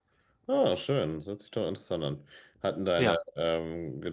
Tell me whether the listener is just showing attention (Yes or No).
Yes